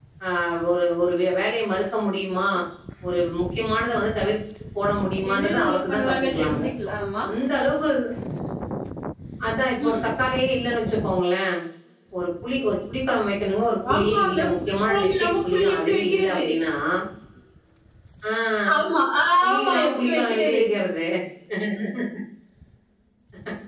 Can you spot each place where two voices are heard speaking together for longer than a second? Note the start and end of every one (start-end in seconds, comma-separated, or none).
5.3-6.6, 13.9-16.4, 19.4-20.6